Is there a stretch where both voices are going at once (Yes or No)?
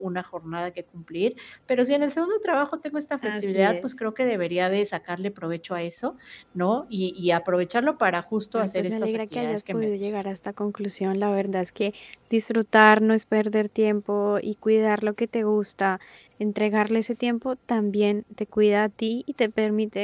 Yes